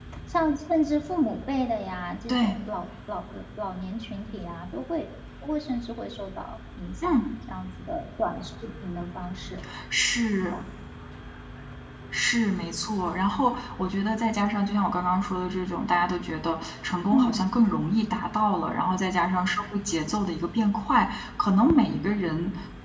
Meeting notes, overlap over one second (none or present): none